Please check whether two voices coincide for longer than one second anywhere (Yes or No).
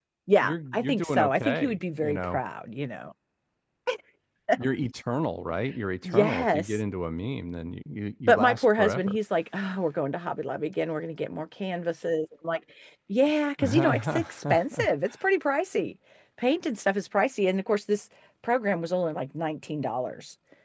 Yes